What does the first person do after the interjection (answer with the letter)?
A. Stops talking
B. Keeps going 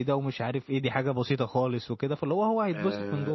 A